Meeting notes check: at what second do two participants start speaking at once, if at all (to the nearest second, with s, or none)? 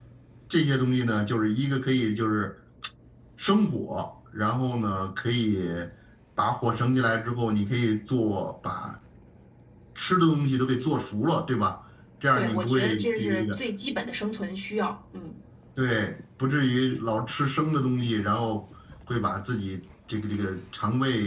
12 s